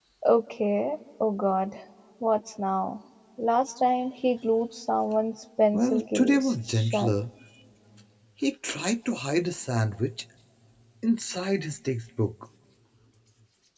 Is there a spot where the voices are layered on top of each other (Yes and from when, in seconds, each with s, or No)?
Yes, from 5.7 s